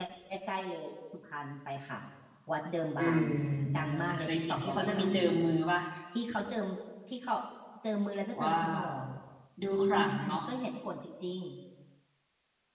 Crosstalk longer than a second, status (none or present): present